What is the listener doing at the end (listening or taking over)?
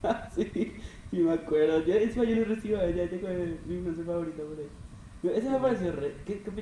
listening